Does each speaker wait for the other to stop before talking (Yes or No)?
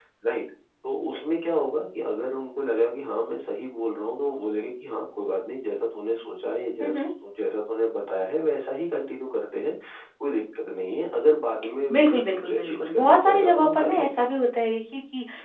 No